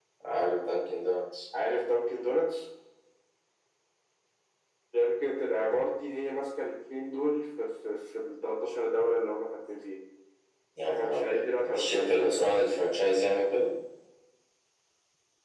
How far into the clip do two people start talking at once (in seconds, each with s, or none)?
10.9 s